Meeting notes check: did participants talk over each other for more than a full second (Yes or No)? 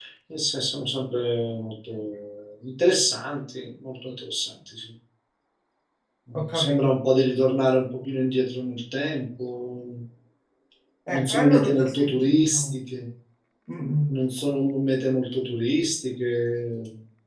Yes